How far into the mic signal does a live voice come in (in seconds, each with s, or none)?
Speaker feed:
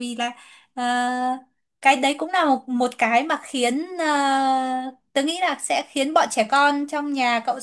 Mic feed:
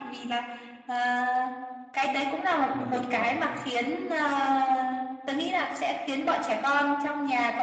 2.6 s